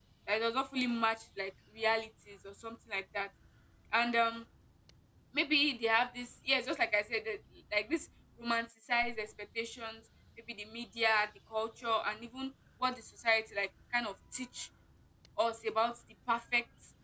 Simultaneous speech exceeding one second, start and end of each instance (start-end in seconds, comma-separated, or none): none